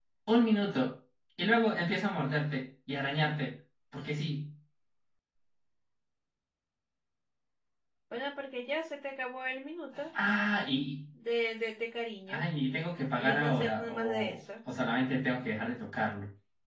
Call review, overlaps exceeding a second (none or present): present